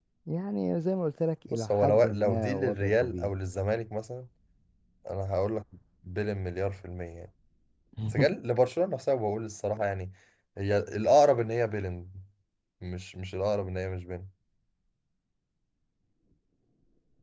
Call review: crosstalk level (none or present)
present